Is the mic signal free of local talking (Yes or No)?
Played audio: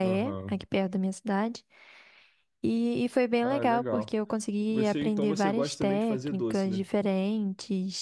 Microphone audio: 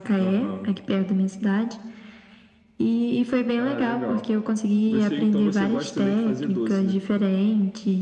Yes